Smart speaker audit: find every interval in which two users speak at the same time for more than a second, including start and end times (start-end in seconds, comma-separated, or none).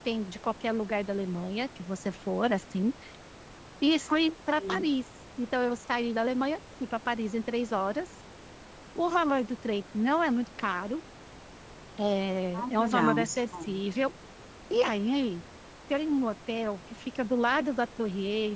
12.5-13.8